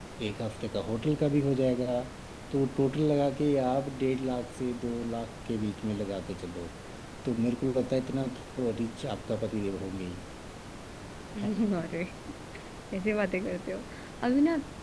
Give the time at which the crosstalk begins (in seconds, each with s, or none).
none